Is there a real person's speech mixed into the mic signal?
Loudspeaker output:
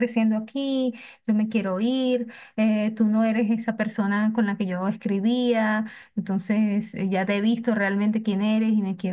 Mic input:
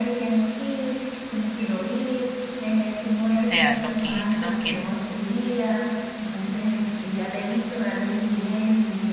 Yes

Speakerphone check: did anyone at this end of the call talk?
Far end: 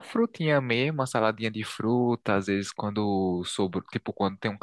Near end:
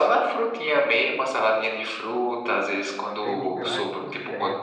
Yes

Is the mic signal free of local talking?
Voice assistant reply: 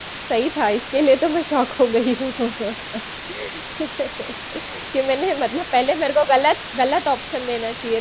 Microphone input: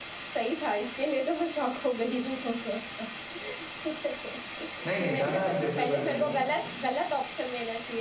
No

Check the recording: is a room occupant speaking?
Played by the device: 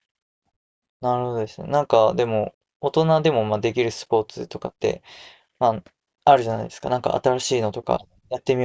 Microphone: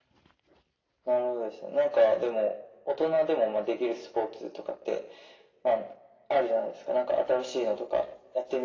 No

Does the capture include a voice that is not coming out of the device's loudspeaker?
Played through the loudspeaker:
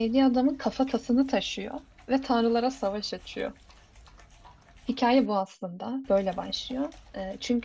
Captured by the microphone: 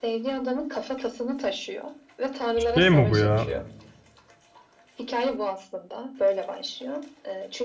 Yes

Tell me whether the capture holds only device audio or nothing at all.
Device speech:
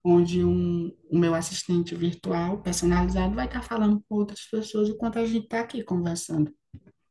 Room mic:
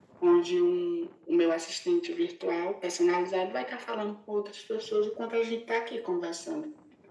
Yes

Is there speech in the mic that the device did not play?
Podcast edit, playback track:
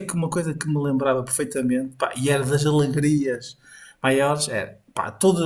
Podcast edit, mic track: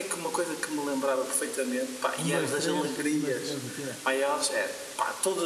Yes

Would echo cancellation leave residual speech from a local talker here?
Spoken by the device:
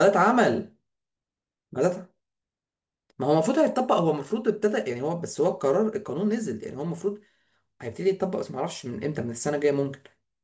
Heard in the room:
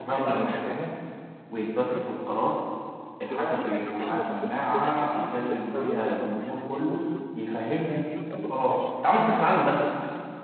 Yes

